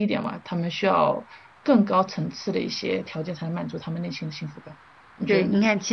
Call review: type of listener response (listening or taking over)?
taking over